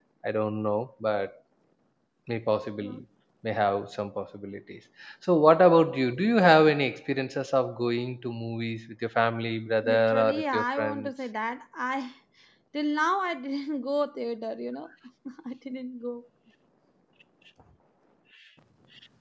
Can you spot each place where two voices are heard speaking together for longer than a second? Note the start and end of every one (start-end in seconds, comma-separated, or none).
9.8-11.1